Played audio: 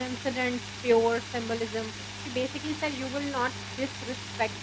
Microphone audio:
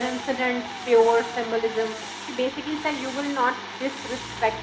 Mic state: echo only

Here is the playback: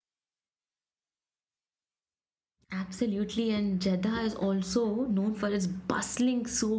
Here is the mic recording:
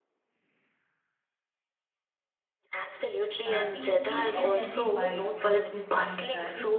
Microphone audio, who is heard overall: both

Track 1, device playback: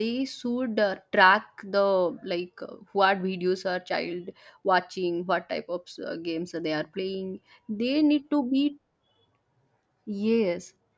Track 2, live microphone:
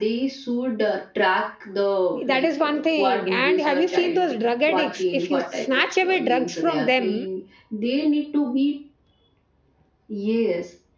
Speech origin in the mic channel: both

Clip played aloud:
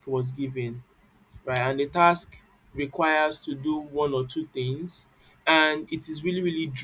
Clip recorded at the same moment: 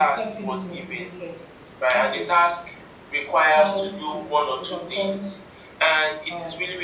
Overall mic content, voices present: both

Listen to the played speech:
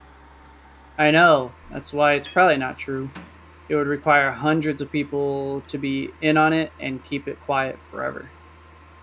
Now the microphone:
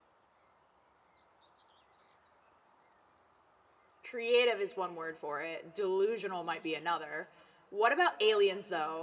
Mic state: user only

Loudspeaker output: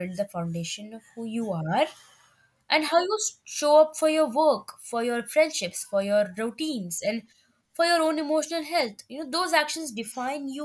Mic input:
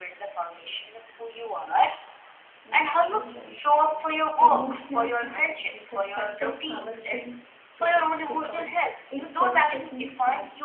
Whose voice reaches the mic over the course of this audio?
both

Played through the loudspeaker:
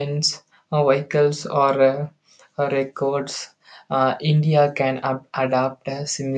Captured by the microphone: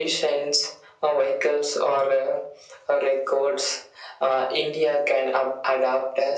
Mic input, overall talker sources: echo only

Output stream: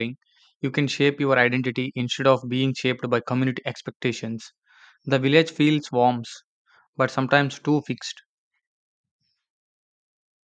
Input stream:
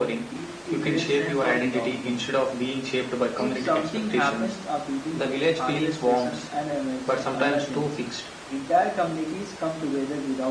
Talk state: both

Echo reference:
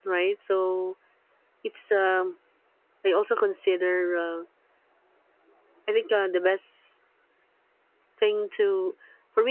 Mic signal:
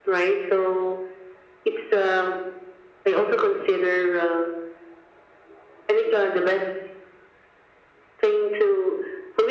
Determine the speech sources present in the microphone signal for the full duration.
echo only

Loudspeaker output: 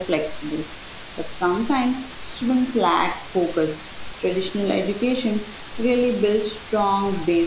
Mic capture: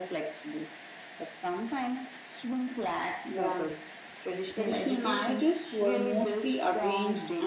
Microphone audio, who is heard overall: both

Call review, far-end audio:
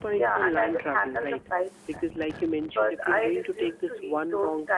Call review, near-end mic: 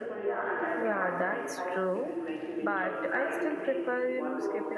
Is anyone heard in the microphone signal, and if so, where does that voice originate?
both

